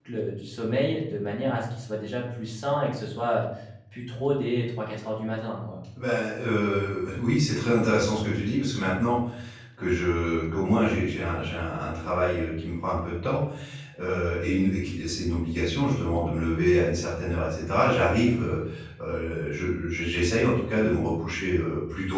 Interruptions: none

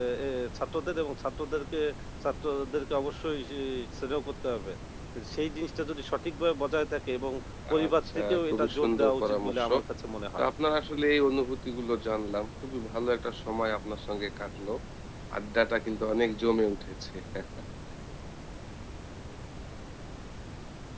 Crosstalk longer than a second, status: present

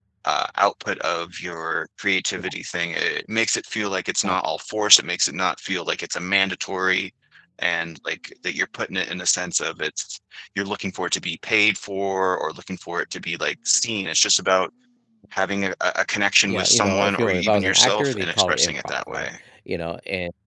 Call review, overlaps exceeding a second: present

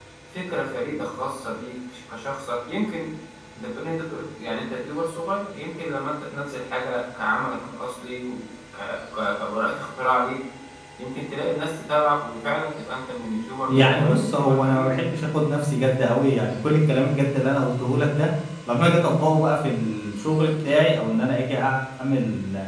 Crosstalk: present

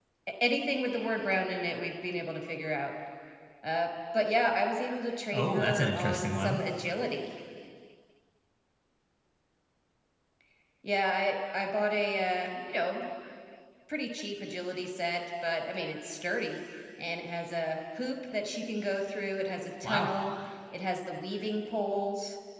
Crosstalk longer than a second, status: present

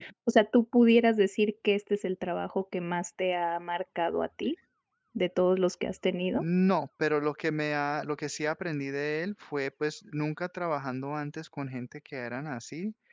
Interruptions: none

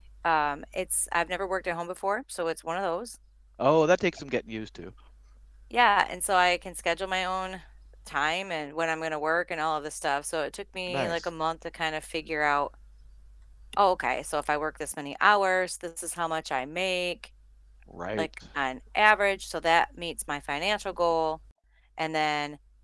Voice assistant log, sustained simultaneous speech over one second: none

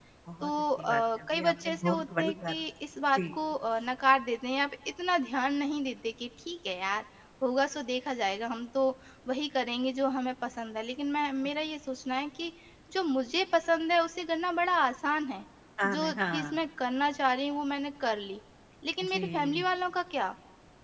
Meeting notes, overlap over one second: present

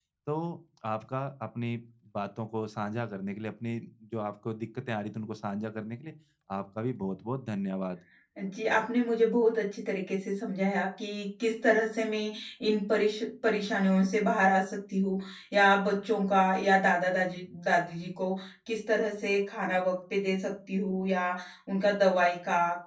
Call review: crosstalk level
none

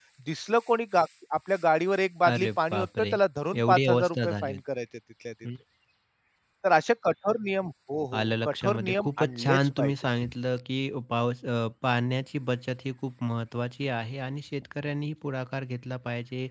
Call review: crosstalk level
present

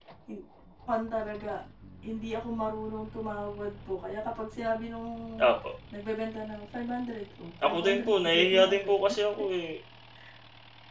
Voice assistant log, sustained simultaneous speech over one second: present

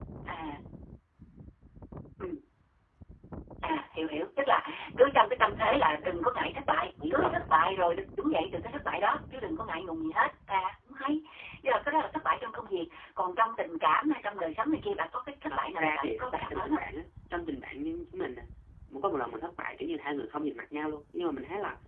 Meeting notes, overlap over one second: present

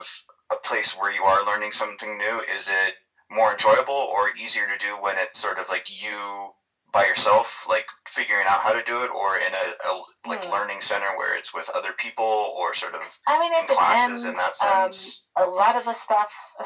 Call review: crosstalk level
present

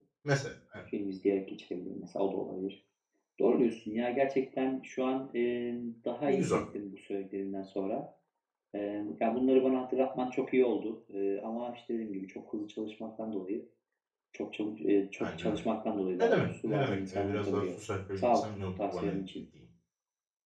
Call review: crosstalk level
present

